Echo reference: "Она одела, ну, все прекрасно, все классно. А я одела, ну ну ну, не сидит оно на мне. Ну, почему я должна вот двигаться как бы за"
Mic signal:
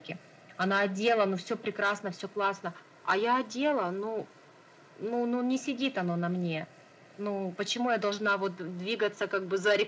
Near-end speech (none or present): none